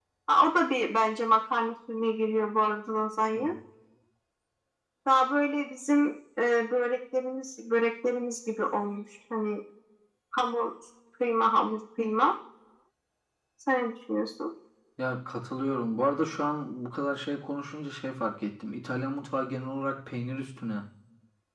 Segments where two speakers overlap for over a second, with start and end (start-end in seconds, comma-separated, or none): none